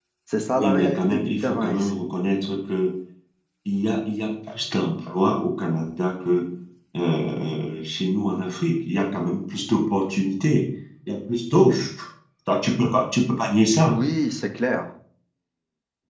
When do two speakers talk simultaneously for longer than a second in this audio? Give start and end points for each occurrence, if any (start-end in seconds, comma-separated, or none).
0.5-2.0